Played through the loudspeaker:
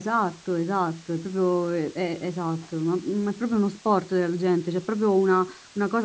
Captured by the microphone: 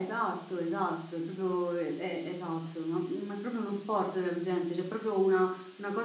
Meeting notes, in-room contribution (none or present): none